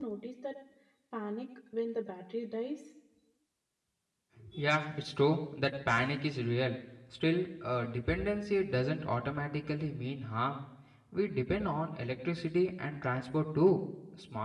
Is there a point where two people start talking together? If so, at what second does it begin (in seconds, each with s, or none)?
none